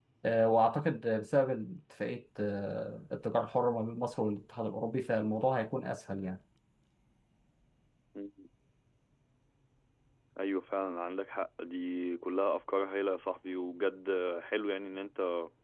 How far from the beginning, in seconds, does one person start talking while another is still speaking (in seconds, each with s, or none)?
none